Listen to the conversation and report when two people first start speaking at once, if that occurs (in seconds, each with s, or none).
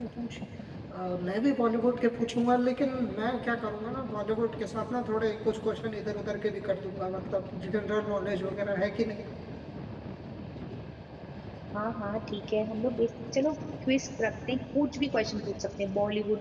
none